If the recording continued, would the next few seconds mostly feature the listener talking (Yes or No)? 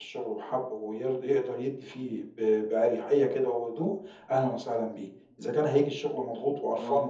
No